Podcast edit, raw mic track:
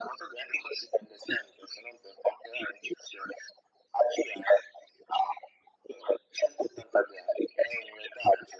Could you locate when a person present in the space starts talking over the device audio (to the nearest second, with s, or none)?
none